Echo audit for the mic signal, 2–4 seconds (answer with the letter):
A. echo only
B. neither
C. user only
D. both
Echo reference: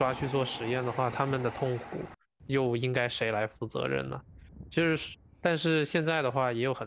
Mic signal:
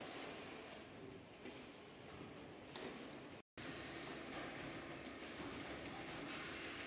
B